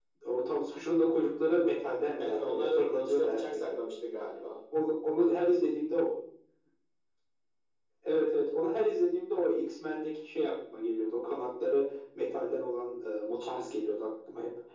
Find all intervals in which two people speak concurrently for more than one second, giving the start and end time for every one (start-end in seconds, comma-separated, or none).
2.2-3.7